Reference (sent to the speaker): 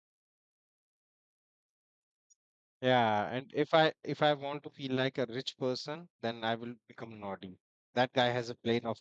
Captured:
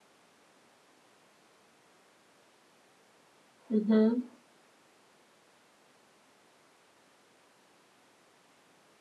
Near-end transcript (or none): Mm-hmm.